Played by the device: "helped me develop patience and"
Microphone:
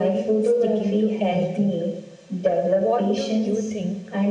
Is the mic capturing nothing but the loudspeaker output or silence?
No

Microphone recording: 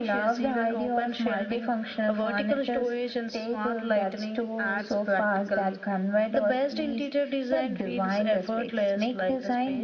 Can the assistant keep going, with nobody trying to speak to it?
Yes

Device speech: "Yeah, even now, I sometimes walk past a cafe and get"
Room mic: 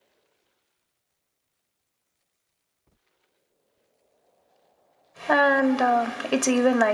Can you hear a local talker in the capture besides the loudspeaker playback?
Yes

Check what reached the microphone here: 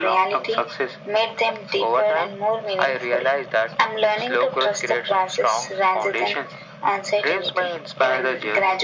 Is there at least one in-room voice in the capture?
No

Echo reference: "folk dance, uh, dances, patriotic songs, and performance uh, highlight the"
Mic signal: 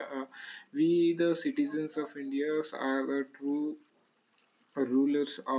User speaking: Yes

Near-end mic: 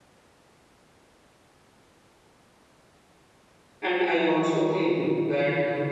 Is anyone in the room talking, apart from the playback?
Yes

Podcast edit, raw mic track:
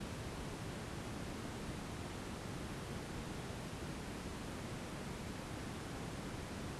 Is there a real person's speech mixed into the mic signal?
No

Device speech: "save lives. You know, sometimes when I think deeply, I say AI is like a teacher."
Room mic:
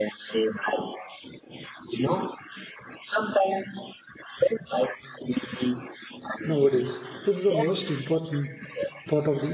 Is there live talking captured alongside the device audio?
Yes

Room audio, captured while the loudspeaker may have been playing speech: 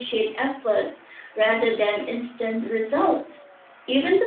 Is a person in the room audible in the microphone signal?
No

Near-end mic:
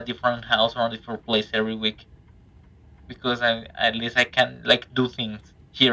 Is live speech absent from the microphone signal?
Yes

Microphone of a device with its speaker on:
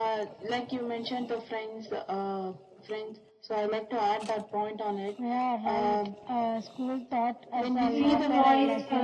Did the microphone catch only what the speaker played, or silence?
No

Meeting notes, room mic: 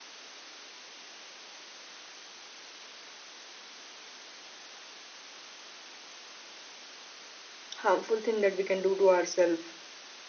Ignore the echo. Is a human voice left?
Yes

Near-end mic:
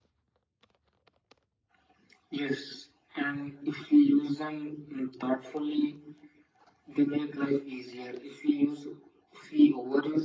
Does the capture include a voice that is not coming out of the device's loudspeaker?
No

